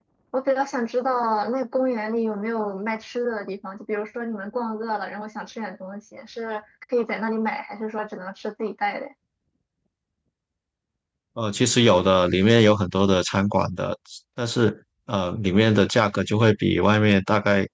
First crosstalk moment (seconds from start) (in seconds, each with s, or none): none